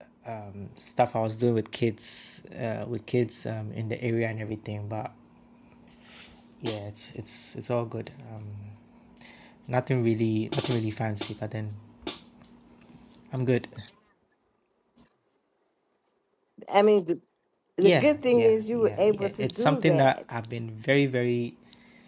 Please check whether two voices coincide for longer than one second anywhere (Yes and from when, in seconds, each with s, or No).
Yes, from 17.8 s